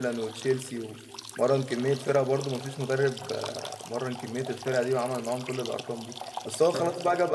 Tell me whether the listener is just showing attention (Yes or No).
Yes